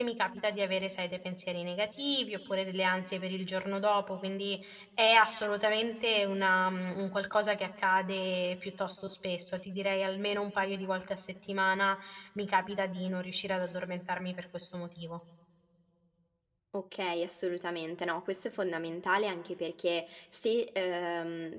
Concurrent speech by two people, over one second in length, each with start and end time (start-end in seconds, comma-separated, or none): none